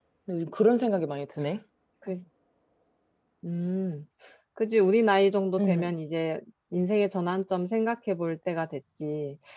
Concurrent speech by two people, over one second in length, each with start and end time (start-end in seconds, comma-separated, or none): none